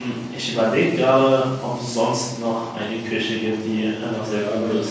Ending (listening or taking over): taking over